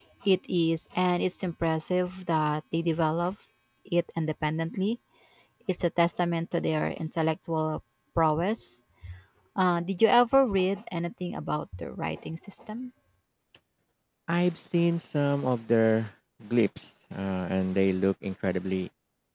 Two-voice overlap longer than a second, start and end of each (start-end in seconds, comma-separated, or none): none